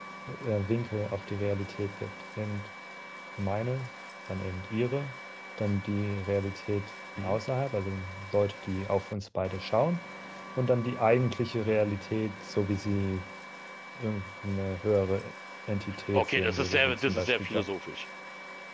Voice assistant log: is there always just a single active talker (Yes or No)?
No